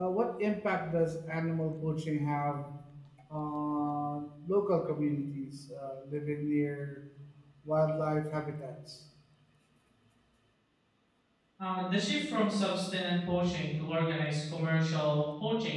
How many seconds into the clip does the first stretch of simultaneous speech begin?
none

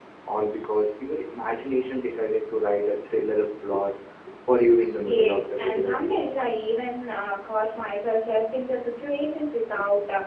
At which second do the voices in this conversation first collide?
5 s

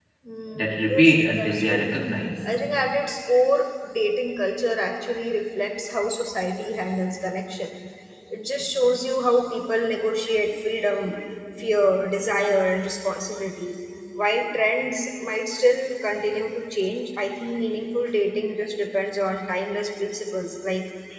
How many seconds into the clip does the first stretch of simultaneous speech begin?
1 s

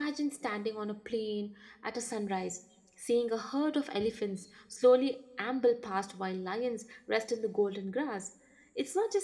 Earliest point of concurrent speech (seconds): none

